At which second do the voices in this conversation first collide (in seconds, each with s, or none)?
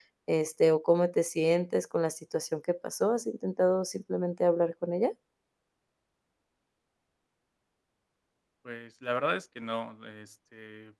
none